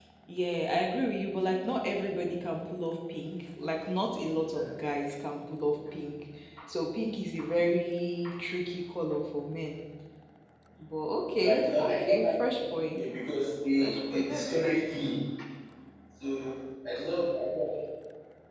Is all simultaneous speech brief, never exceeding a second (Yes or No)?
No